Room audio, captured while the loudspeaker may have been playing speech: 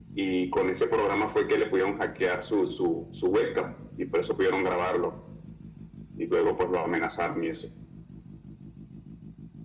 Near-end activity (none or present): none